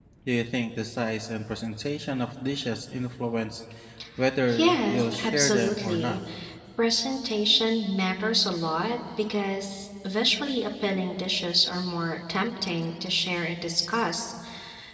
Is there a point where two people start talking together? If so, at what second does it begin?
5 s

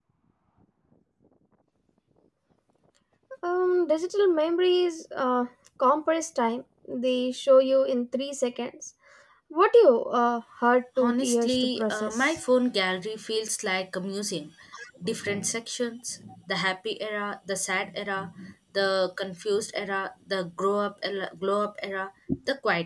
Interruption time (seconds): 11 s

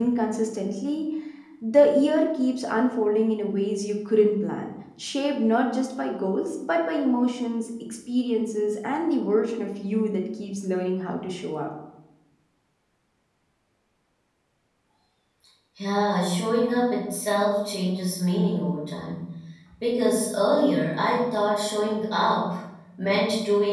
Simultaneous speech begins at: none

